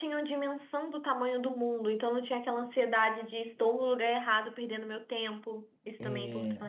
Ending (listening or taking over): taking over